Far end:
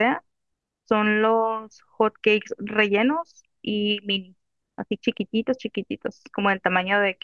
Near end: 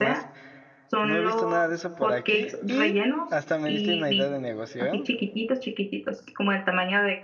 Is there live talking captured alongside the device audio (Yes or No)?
Yes